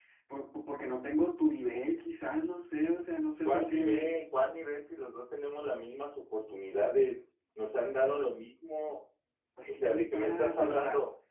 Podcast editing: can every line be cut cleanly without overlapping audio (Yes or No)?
No